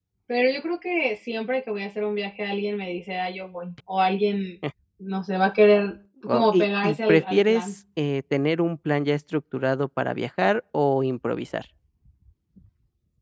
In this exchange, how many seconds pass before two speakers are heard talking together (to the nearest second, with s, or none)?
6 s